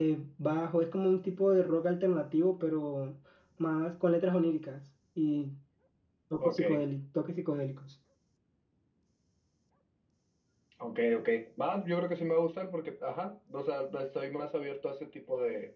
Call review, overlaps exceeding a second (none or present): none